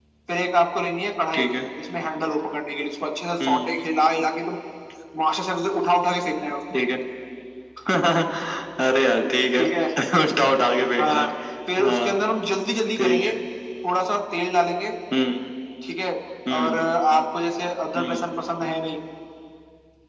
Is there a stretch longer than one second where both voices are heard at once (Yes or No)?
No